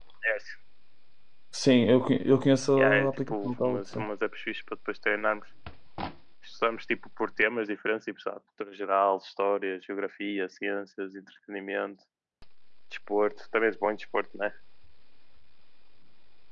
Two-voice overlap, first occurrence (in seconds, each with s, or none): 2.8 s